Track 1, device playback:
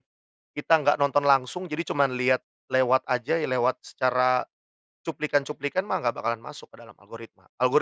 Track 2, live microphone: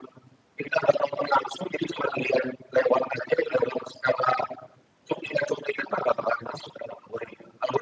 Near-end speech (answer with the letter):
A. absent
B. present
A